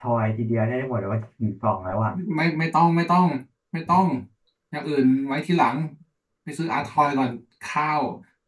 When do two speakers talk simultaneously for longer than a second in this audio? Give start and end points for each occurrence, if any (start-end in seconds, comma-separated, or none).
none